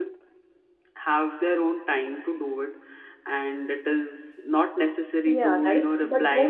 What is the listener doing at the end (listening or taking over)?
taking over